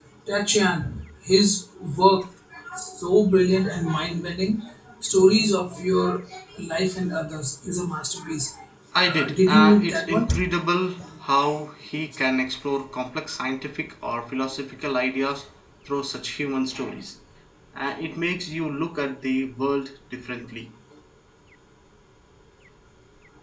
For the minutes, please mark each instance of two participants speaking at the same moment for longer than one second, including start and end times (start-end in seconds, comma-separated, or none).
9.1-10.3